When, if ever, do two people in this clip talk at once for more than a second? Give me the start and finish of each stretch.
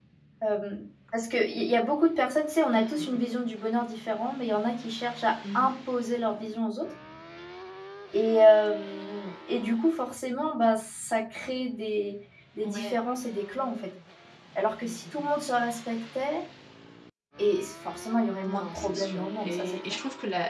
18.5-20.0

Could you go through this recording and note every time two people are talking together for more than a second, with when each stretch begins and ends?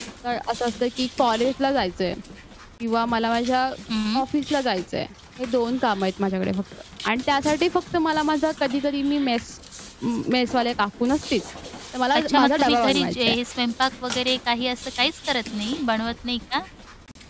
12.1-13.4

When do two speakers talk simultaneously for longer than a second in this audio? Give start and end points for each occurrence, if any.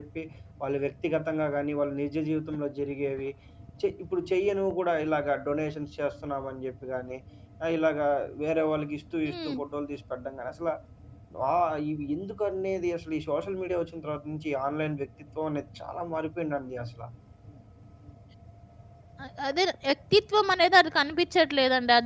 none

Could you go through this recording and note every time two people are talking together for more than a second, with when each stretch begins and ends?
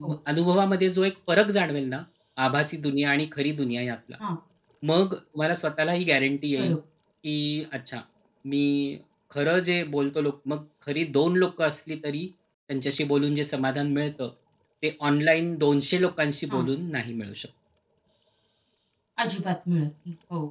none

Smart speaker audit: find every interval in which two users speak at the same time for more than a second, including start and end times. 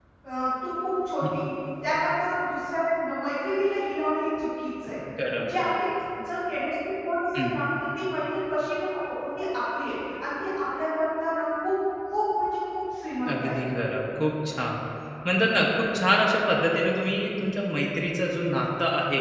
none

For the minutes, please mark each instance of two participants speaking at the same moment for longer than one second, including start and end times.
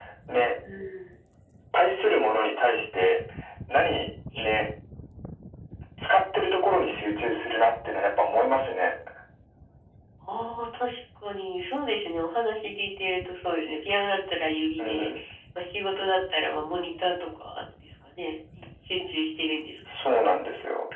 none

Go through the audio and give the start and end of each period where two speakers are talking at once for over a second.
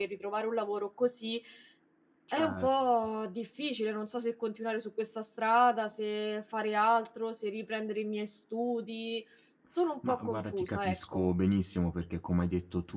10.1-11.3

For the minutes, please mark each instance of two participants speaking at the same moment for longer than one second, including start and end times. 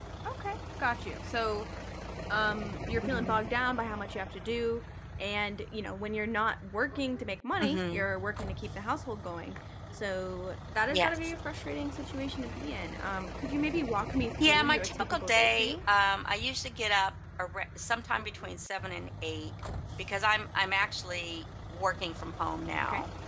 14.4-15.8

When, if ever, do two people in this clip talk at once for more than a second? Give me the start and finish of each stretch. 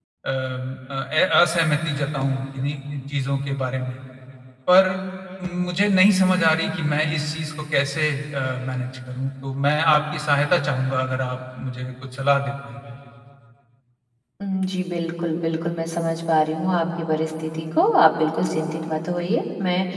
none

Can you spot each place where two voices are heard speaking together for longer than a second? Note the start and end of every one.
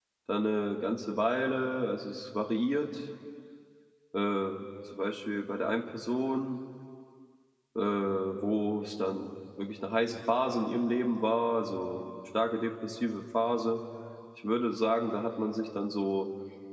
none

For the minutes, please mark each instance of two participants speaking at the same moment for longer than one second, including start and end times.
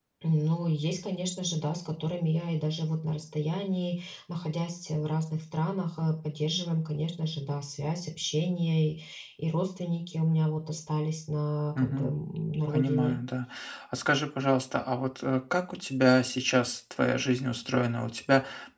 none

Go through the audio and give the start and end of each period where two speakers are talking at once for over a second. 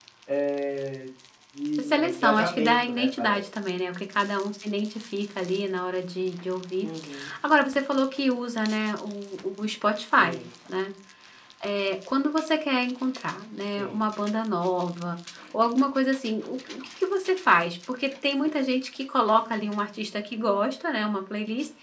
1.8-3.4

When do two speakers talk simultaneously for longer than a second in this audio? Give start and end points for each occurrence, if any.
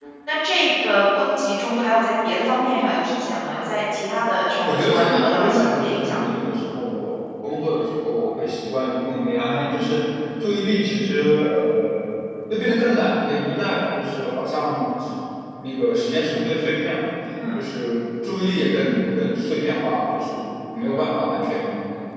4.6-6.2

